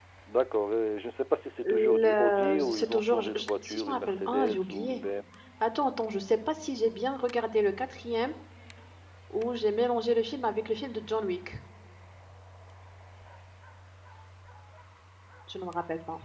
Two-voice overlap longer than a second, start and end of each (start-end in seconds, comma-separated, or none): 1.7-5.0